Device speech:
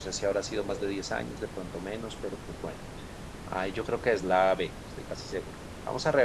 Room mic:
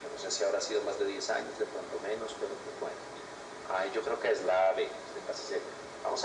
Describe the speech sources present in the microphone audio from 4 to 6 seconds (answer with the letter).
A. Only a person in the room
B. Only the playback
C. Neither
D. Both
B